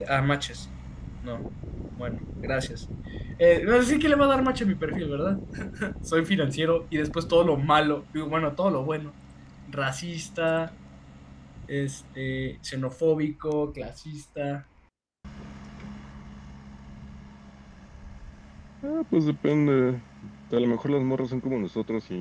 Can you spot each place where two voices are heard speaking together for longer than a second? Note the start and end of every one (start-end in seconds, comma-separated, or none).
none